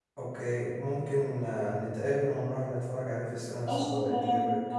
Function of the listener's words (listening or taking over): taking over